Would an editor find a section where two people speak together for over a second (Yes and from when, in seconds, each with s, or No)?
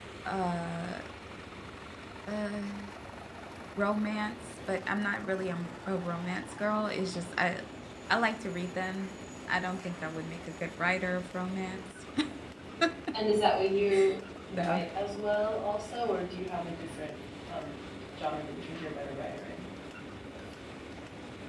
No